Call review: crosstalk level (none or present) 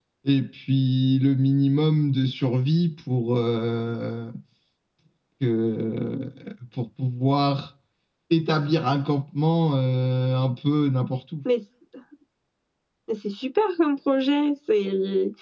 none